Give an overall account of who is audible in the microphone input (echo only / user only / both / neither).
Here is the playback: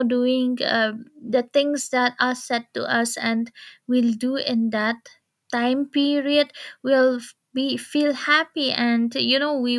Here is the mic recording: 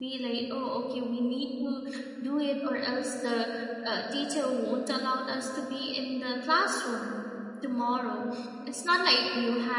user only